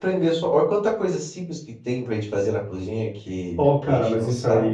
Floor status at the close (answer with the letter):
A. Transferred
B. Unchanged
A